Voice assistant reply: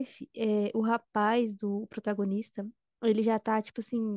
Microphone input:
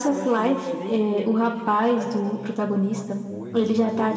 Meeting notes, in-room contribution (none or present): present